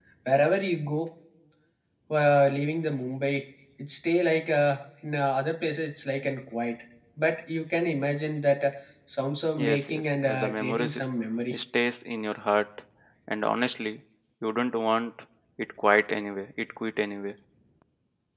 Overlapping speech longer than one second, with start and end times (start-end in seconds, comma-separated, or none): 9.6-11.1